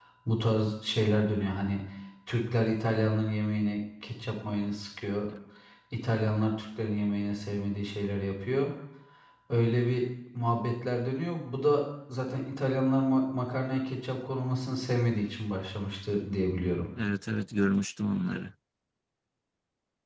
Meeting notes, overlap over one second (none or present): none